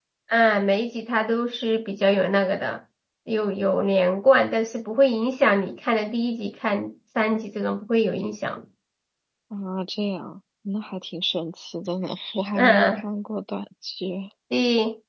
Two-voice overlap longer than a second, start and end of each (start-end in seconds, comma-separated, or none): none